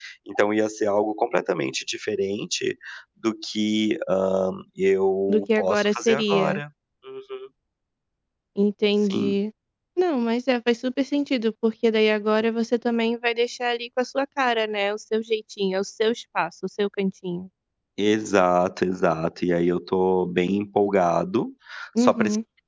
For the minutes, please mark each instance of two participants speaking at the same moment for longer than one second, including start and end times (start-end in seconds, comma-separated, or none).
5.3-6.6